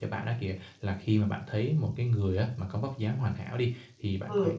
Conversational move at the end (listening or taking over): listening